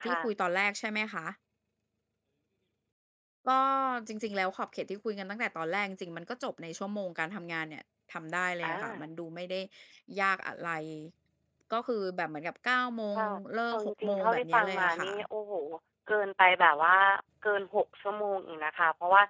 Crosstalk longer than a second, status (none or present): present